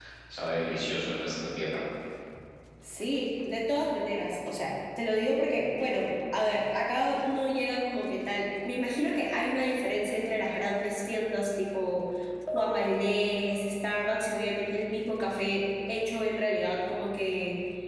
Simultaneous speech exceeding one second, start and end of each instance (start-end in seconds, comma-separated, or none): none